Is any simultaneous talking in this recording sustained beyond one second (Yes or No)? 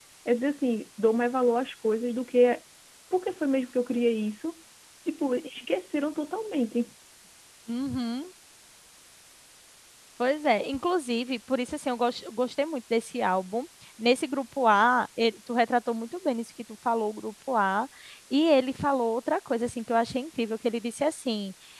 No